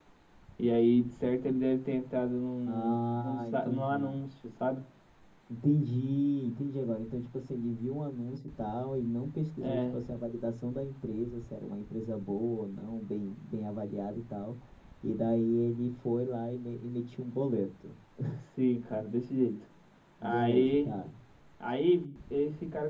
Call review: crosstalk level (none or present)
present